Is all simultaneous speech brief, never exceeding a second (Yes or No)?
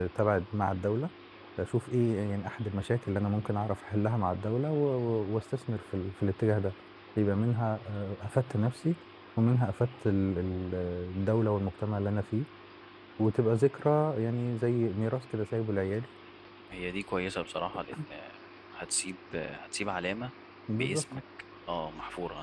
Yes